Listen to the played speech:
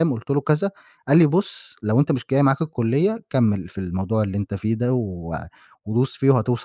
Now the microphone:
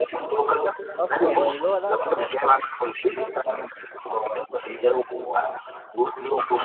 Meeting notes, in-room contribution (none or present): present